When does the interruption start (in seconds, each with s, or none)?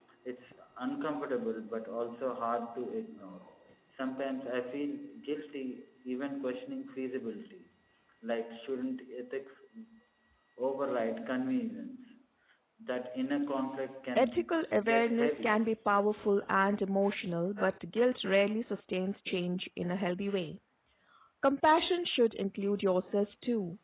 14.2 s